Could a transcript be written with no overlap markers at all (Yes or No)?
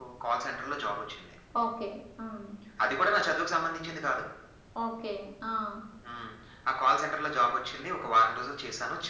Yes